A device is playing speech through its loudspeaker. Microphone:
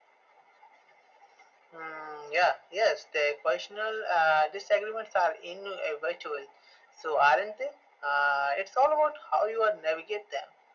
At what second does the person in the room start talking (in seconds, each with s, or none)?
none